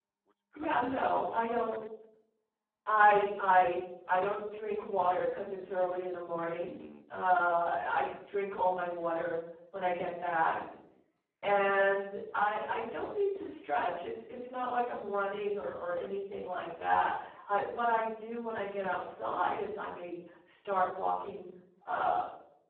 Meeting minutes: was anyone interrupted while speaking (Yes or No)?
Yes